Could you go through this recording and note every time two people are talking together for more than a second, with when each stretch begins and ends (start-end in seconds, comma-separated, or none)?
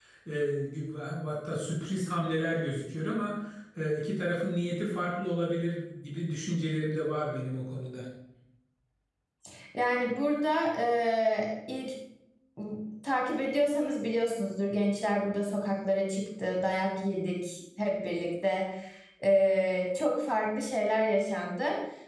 none